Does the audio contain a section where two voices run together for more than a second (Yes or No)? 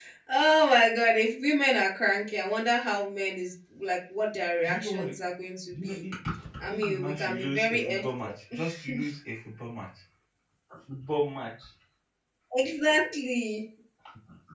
Yes